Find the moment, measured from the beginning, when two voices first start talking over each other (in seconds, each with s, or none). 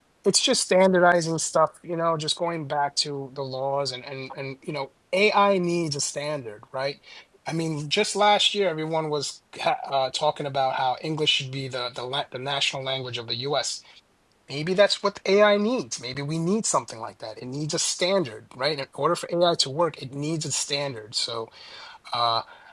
none